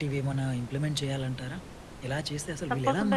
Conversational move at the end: taking over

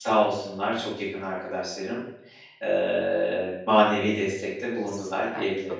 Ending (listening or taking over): taking over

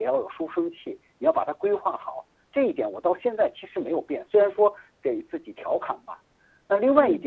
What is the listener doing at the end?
listening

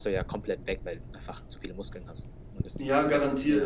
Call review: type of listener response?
taking over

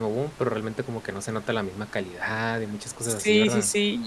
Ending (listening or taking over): taking over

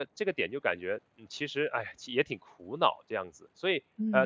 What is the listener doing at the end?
taking over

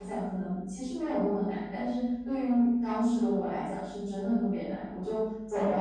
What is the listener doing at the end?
listening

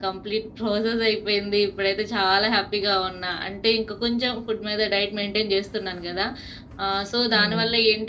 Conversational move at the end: listening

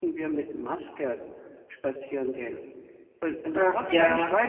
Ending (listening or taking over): listening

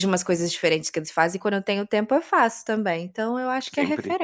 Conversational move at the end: taking over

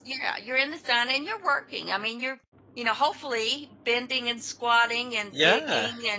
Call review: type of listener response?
listening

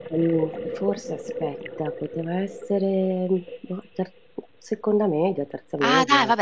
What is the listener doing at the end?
taking over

